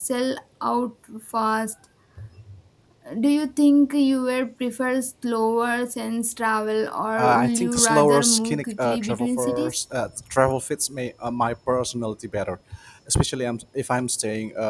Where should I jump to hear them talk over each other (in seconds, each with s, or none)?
7.2 s